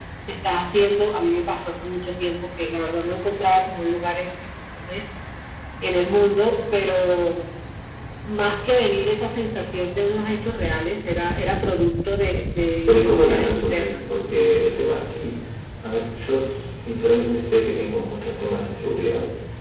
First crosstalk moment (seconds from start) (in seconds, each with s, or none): 12.9 s